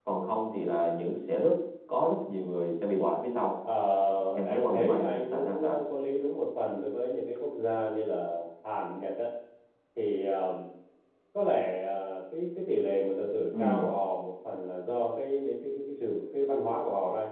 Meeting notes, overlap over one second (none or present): present